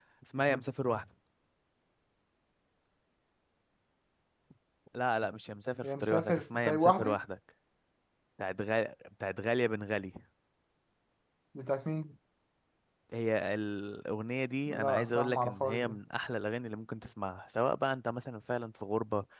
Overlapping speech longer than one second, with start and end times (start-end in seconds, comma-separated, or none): 5.8-7.2, 14.7-16.0